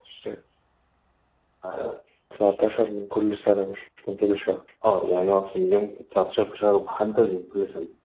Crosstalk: none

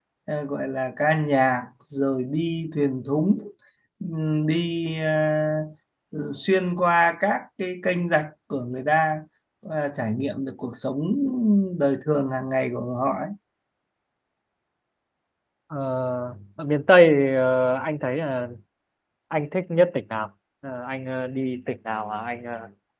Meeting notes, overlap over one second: none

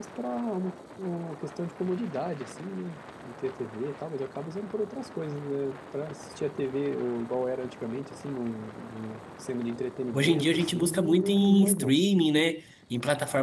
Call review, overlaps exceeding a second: present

